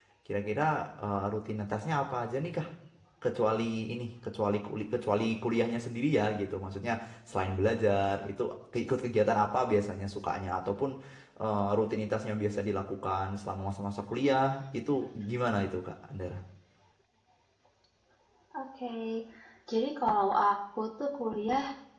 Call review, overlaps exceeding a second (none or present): none